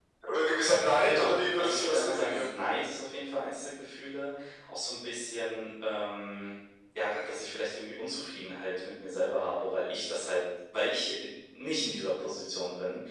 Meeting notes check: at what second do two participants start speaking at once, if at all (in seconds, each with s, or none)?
1.0 s